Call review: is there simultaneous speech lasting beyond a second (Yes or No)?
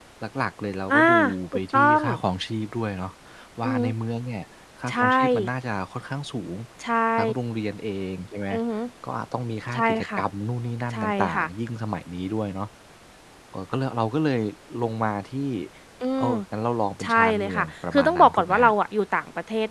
Yes